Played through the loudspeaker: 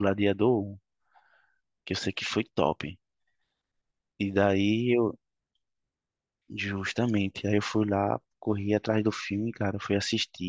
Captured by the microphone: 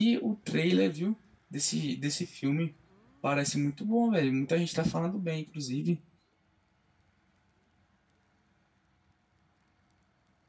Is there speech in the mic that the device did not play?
Yes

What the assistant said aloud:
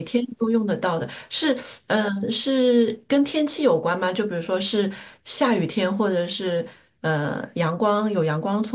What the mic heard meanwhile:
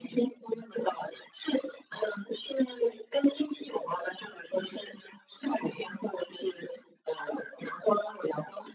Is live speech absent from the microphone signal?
Yes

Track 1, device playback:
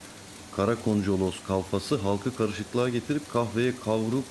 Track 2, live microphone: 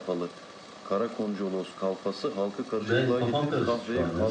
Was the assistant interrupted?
Yes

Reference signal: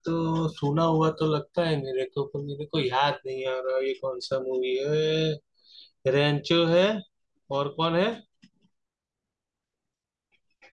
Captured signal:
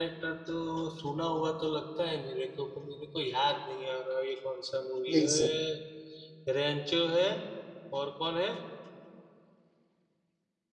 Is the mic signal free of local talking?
No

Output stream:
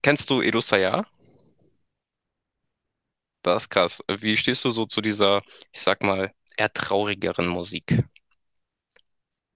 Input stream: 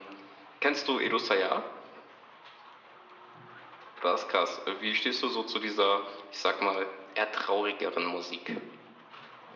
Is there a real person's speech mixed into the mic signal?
No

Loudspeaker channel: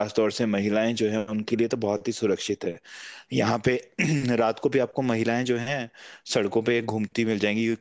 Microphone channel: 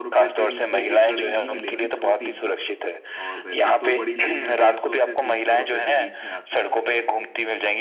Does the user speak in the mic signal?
Yes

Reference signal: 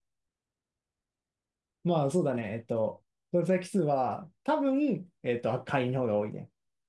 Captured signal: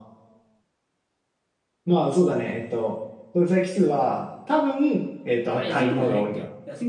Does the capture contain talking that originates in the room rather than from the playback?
Yes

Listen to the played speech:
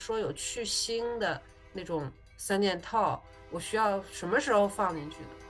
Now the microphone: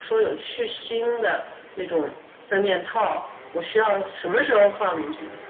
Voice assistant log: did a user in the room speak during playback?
No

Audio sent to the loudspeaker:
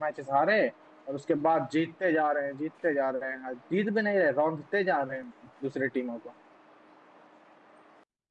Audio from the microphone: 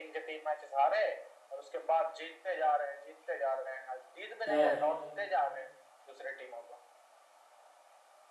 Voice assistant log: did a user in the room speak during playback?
Yes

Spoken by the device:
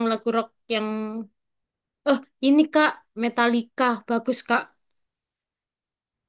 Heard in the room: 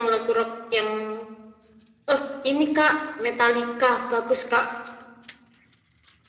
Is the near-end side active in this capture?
No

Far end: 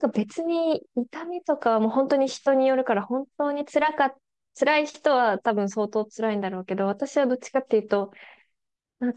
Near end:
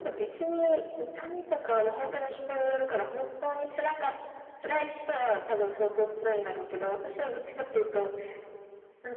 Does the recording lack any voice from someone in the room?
Yes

